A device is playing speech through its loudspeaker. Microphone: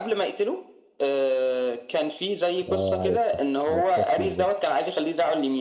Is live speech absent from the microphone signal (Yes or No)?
No